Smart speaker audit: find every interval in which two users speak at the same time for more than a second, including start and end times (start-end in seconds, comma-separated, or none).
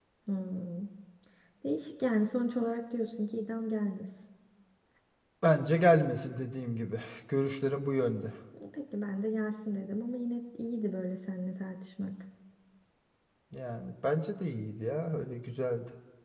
none